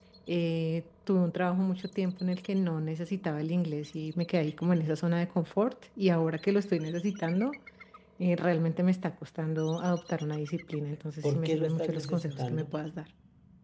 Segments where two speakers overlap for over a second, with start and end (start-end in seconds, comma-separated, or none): 11.2-12.8